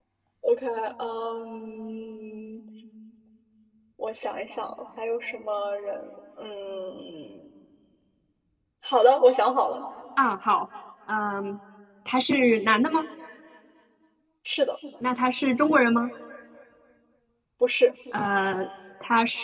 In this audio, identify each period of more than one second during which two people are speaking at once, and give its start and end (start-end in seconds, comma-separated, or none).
none